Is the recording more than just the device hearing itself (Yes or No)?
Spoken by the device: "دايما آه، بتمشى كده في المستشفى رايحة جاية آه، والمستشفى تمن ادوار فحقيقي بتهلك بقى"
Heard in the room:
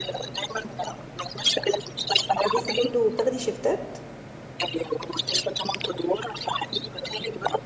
Yes